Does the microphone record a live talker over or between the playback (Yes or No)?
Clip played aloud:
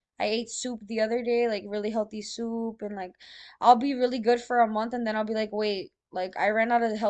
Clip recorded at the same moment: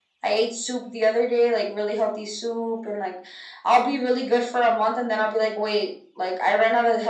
No